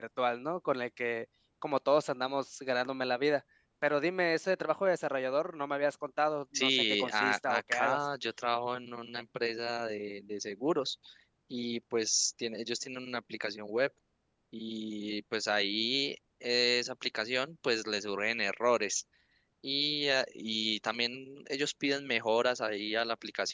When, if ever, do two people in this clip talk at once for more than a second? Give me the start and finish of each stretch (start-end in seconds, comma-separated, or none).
6.5-8.1